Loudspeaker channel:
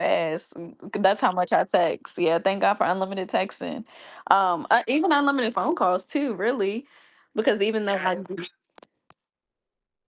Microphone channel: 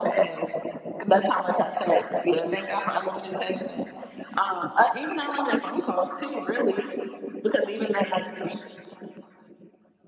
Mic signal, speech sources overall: echo only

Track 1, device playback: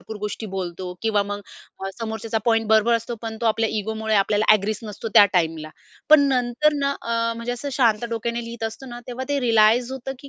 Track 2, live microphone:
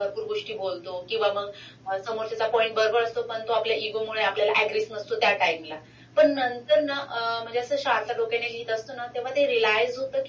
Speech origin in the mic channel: echo only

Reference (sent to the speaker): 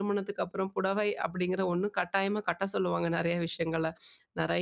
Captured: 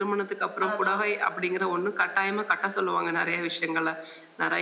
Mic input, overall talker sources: both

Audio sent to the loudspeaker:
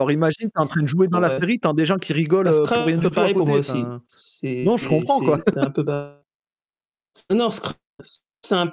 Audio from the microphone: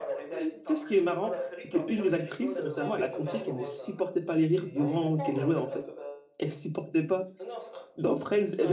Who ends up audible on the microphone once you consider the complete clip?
both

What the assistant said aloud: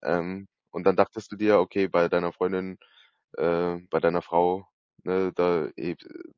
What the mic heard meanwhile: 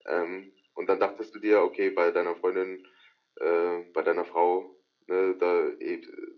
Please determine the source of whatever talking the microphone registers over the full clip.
echo only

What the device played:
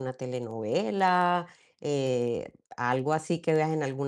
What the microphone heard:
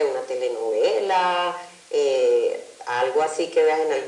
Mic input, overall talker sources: echo only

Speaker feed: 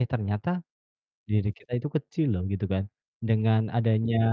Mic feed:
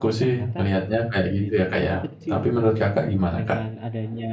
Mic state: both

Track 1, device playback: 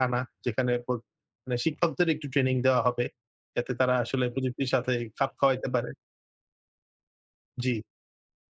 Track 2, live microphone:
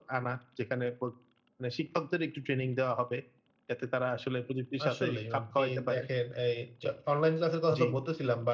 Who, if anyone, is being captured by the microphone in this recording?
both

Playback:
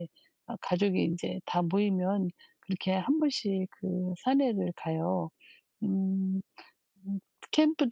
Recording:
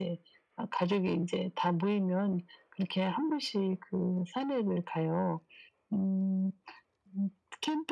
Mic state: echo only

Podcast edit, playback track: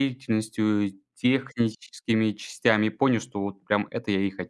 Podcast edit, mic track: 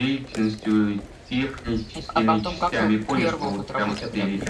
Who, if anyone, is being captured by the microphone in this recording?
both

